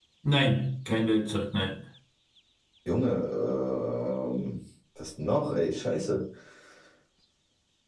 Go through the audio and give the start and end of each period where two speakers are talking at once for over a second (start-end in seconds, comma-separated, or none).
none